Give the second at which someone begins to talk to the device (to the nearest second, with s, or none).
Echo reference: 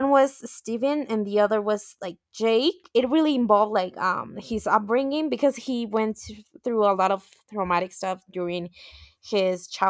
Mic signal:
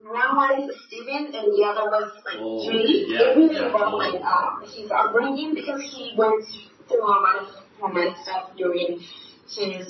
2 s